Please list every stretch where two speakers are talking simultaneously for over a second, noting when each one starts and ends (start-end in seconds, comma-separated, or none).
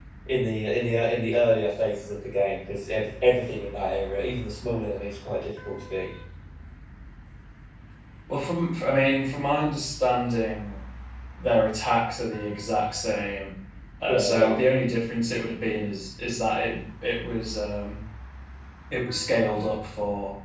none